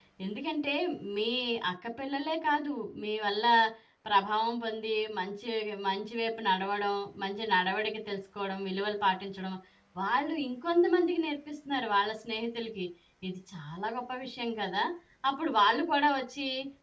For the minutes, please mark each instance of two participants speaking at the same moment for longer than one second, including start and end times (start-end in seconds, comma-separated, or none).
none